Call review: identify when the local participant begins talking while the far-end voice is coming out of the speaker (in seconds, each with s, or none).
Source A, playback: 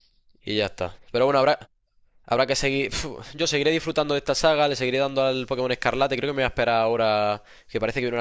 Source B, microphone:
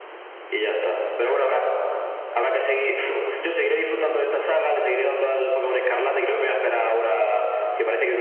none